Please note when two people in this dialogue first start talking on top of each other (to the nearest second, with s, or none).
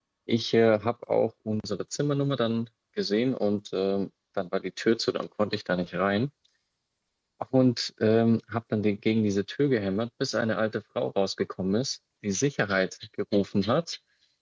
none